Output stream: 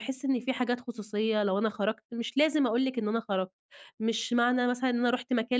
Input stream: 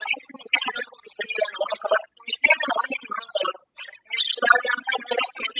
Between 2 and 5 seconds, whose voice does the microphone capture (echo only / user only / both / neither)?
echo only